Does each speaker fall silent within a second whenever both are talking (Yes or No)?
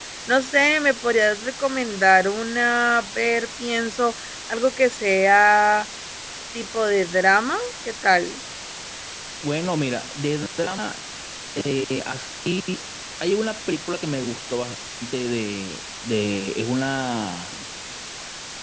Yes